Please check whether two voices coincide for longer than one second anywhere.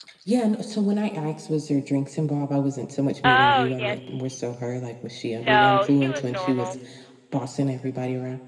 Yes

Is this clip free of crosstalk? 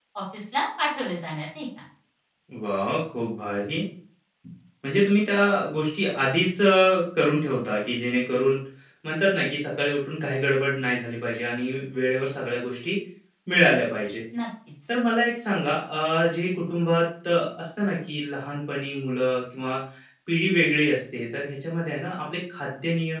Yes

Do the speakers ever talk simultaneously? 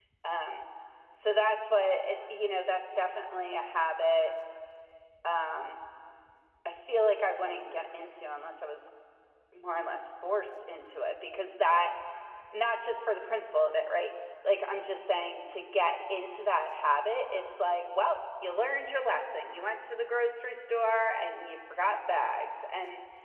No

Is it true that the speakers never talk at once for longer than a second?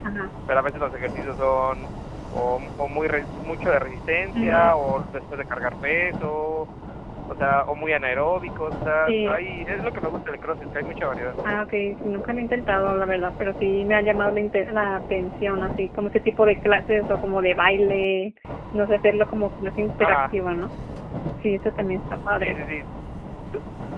Yes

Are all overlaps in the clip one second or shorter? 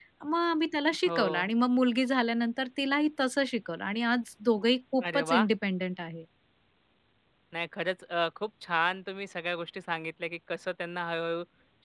Yes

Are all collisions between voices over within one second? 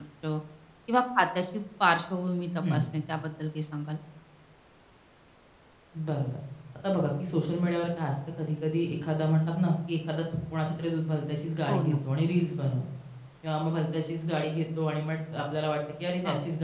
Yes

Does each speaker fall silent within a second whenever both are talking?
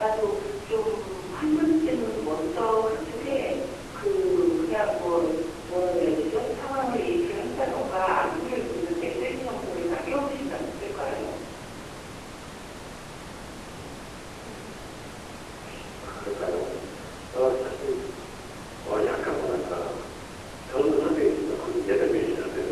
Yes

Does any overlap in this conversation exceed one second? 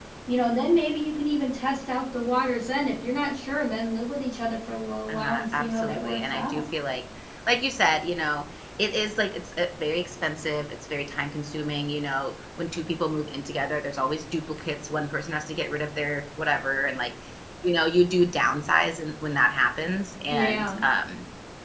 Yes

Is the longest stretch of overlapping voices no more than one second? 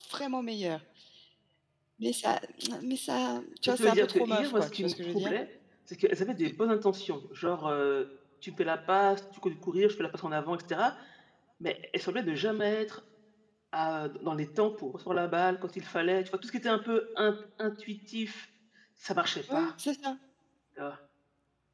No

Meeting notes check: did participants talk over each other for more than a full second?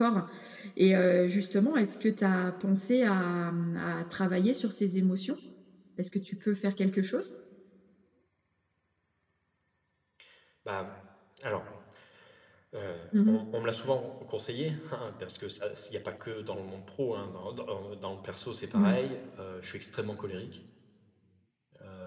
No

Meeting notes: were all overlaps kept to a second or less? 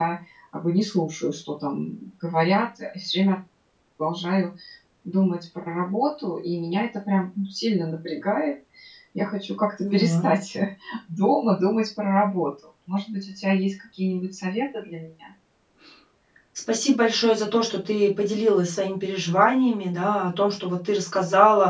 Yes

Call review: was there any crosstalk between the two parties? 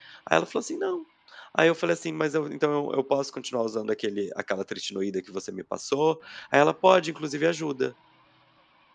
No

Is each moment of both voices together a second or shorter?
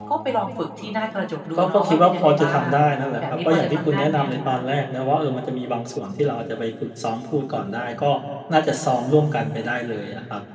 No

